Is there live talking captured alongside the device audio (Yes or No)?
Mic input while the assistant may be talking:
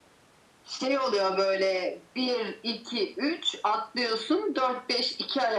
No